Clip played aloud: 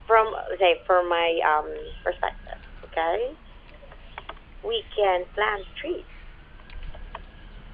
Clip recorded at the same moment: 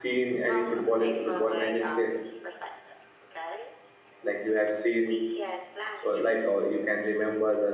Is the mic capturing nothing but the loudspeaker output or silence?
No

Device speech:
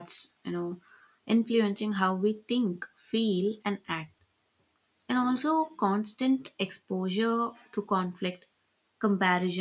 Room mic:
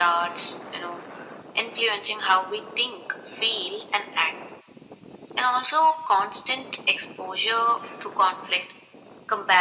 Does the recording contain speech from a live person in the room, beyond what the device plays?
No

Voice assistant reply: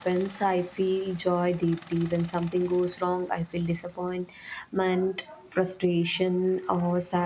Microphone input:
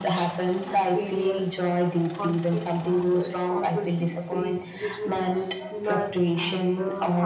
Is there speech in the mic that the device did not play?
Yes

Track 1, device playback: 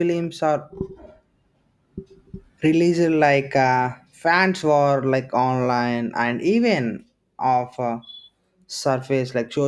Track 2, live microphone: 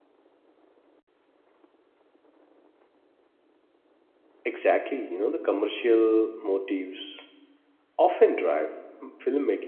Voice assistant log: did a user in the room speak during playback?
Yes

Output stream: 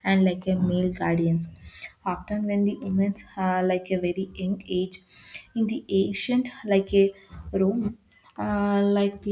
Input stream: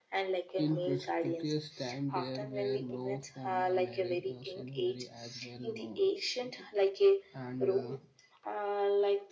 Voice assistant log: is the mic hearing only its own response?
No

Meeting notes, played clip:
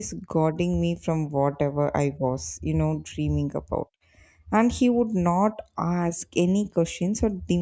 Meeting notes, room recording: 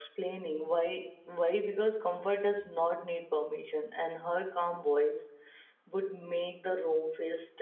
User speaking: Yes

